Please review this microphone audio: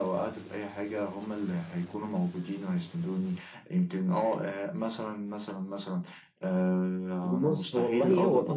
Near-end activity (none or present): present